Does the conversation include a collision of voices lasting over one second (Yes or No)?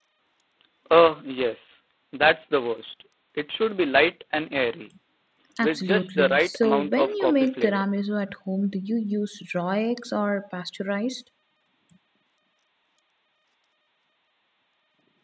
Yes